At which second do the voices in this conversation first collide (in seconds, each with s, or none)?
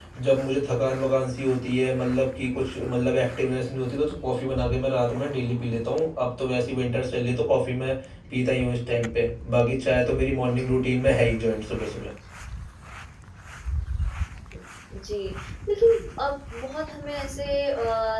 none